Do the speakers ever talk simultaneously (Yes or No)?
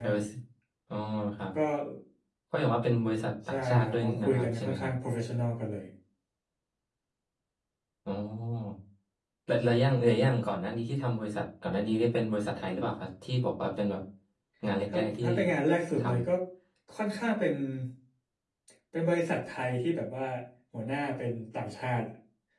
Yes